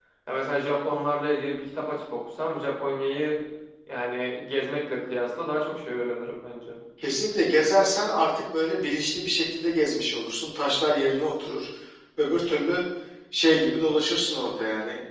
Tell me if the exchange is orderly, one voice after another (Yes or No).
Yes